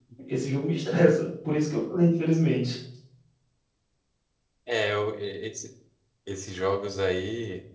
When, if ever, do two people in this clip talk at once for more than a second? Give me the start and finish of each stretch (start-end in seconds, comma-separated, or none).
none